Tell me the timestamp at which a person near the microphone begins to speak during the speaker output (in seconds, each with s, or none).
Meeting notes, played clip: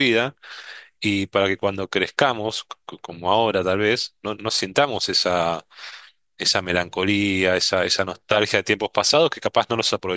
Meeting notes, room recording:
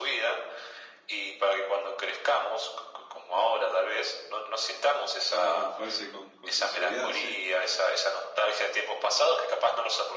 5.3 s